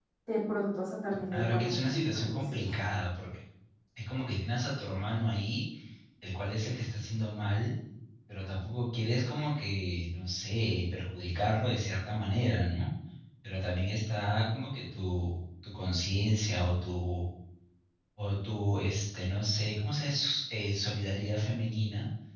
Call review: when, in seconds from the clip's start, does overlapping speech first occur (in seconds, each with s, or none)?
1.3 s